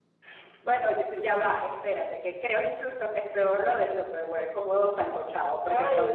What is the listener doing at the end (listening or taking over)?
listening